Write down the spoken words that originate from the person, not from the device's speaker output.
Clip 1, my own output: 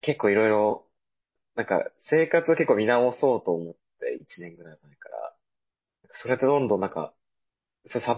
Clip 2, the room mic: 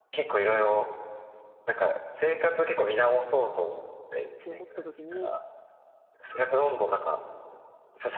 って思った時に、

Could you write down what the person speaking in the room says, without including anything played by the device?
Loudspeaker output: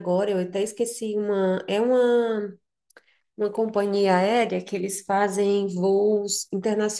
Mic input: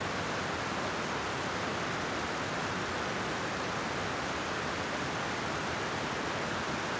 none

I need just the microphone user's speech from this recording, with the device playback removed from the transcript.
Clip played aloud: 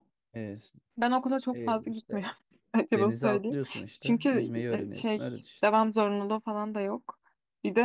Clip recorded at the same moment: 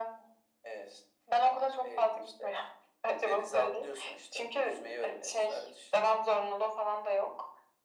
none

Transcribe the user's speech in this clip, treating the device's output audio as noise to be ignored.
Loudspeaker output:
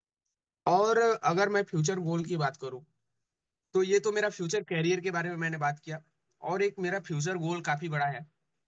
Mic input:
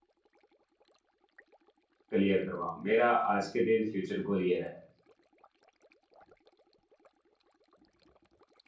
क्लियर करवाऊँ मेरा आज के दिन फ्यूचर गोल ये रहा है

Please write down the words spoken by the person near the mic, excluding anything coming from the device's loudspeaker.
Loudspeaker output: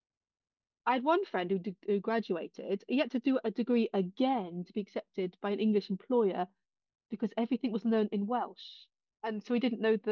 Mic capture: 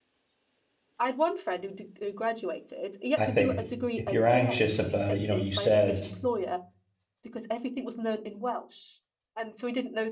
I think if you're anxious about it, you know, you said

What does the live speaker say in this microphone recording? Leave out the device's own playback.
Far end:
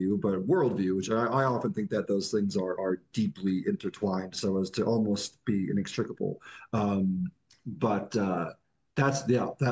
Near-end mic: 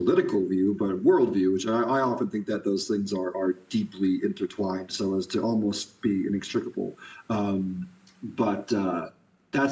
none

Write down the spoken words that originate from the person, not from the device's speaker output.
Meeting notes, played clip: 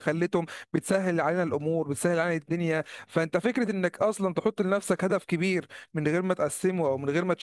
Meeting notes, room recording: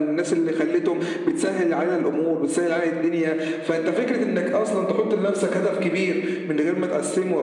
none

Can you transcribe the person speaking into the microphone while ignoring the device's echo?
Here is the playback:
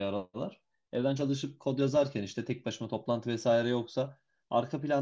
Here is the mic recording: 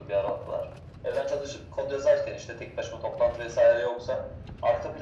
none

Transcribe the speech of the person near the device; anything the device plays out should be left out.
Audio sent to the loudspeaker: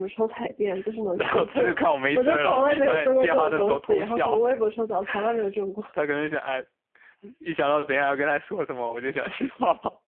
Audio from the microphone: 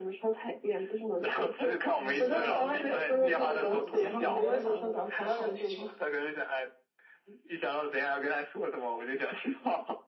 我觉得我肯定嗯应该能考不错，结果没有想到没有考好那种。

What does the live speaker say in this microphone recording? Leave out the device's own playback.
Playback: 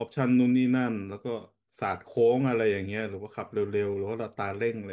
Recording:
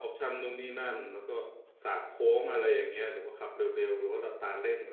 none

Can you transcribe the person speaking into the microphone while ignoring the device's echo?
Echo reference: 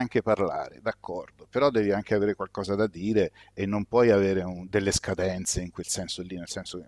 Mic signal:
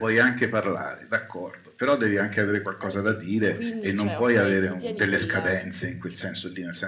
E, e quindi, cioè, ok, ti tieni quella-

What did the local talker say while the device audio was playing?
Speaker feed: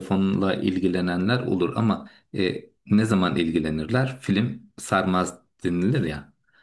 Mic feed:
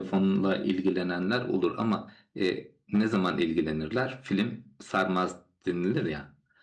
none

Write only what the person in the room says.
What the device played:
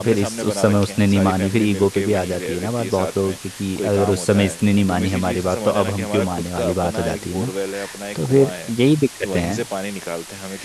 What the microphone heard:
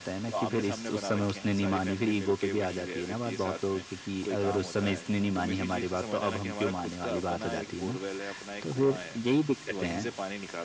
none

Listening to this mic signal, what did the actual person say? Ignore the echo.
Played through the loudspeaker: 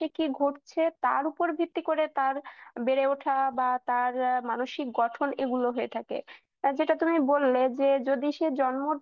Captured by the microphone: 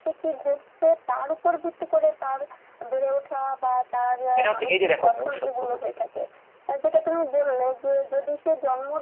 এটা হচ্ছে এই যে দেখো মনুষ্যত্ববোধ

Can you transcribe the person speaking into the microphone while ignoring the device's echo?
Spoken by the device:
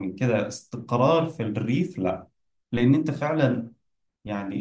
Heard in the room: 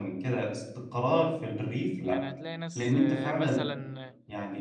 يعني هتلاقي ناس آه، مثلا

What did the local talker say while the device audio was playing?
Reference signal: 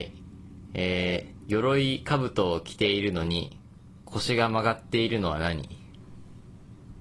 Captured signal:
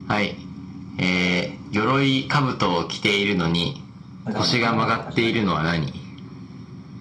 だからまあ果物とかじゃないな。

